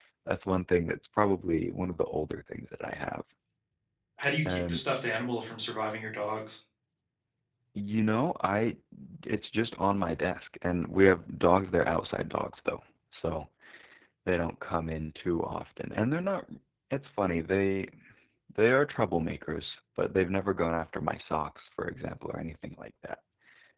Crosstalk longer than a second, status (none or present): none